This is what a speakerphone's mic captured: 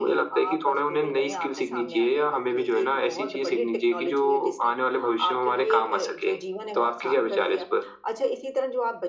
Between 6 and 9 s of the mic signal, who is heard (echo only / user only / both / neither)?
echo only